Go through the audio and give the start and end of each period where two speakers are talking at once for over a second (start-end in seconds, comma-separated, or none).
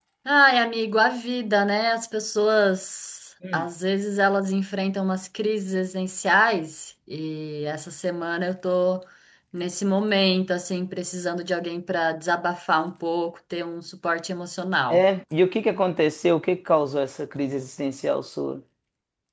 none